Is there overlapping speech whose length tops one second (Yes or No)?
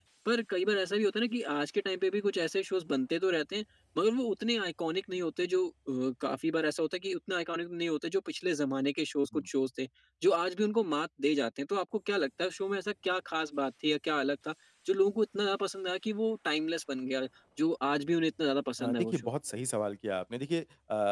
No